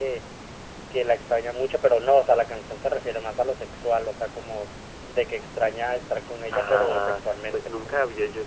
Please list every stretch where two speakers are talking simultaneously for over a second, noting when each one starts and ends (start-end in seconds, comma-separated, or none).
6.5-7.7